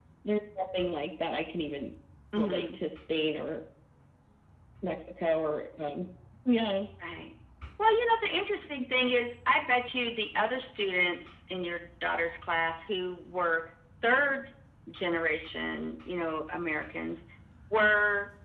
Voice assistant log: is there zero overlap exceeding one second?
Yes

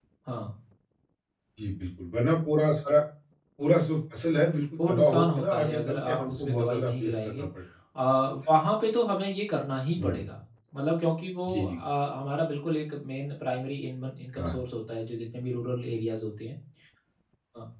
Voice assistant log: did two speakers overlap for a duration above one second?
Yes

